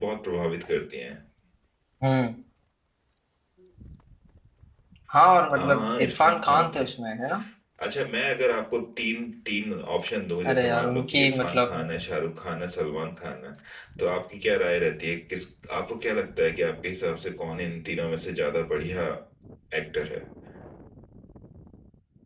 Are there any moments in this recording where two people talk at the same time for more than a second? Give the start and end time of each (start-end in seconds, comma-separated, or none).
5.5-6.8, 10.5-11.8